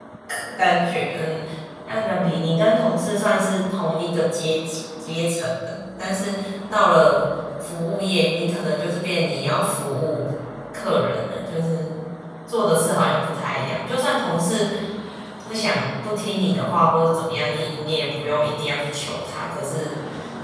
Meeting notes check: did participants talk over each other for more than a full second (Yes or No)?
No